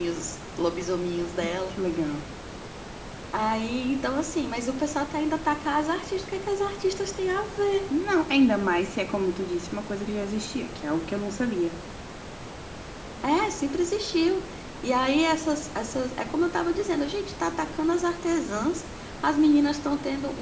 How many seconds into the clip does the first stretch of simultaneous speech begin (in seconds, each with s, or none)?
none